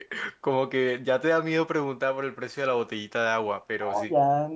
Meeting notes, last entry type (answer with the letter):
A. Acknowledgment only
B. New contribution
B